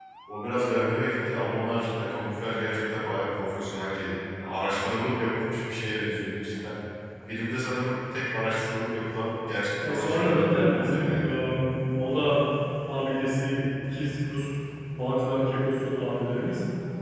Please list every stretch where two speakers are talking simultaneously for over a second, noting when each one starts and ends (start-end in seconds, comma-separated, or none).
9.8-11.3